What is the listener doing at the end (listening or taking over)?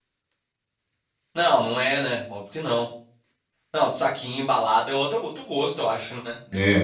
taking over